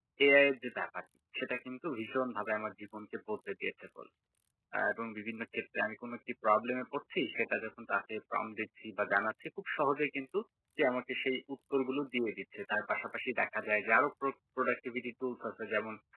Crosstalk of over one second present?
No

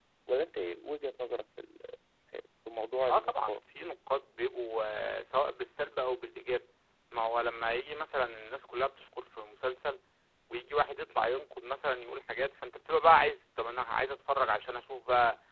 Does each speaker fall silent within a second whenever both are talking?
Yes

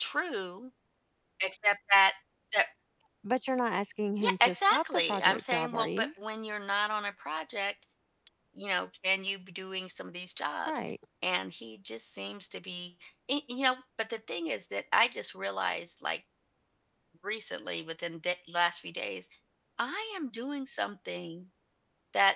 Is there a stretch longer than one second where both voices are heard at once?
Yes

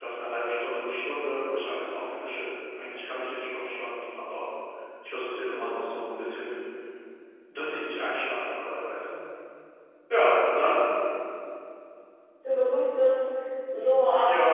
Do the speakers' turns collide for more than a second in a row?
No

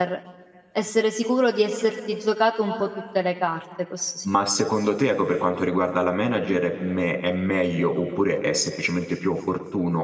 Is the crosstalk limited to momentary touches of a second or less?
Yes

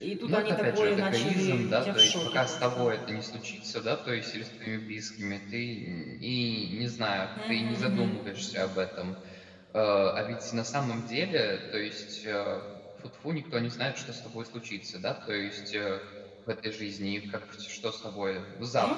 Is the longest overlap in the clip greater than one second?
Yes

